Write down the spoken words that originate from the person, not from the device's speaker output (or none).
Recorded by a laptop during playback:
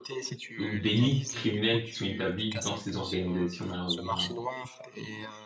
ou délits criminels qui sont établis dans ces organisations, malheureusement, hein,